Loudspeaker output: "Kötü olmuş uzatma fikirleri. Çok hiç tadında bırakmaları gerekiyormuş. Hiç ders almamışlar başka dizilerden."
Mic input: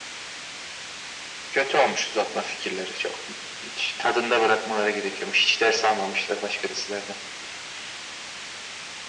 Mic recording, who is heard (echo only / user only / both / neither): echo only